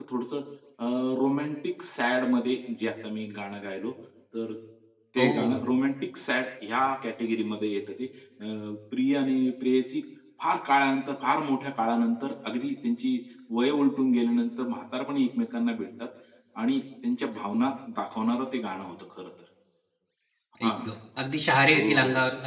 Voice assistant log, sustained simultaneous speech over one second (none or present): none